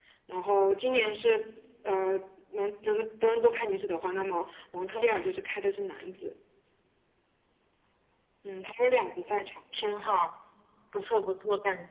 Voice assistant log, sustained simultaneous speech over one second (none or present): none